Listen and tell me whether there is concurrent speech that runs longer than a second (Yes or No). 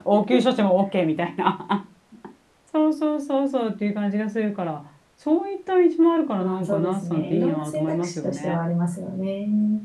Yes